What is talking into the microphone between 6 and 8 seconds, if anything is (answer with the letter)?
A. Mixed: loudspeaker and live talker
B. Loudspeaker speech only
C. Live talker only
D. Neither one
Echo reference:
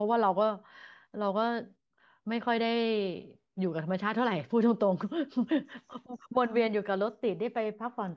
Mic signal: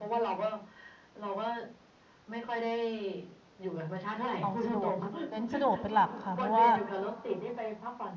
A